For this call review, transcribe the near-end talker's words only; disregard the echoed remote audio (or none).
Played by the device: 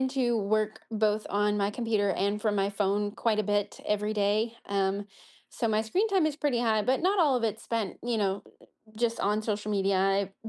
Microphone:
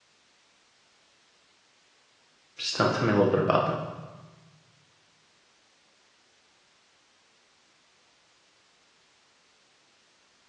Just tell, tell me a little bit about that.